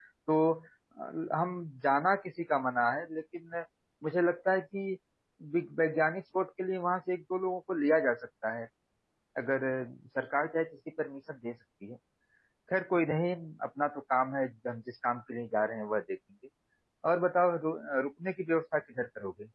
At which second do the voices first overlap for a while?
none

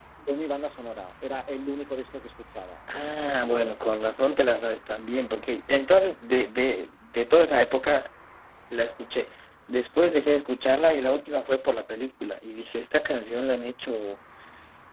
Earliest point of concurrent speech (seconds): none

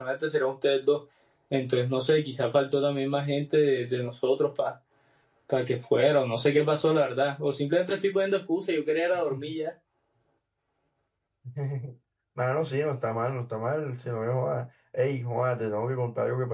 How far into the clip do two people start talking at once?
none

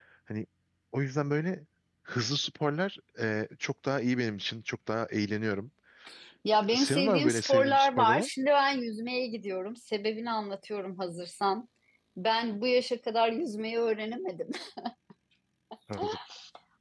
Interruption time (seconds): 6.8 s

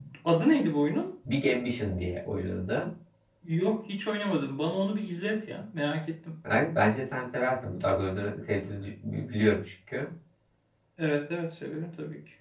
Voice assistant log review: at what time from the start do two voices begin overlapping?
none

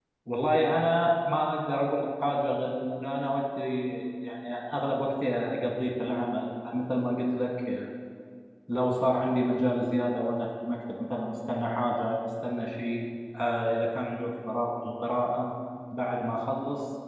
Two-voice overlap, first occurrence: none

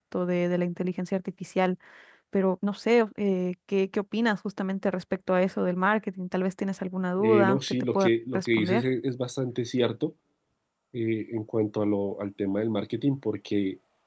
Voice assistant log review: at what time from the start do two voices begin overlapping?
7.2 s

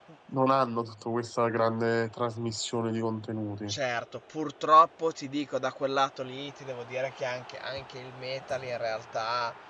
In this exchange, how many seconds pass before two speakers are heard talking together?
none

